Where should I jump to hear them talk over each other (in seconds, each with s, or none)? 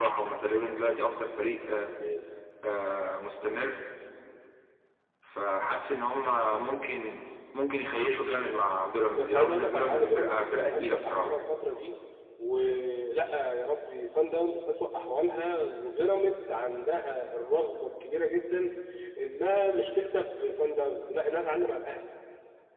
9.2 s